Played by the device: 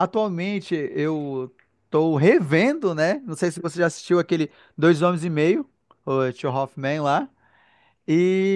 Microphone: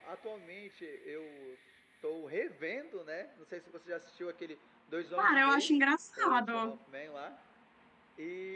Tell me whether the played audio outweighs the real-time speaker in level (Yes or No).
No